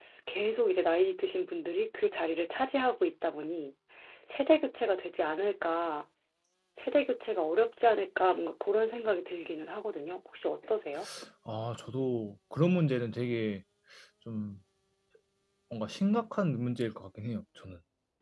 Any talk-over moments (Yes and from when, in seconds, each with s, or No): No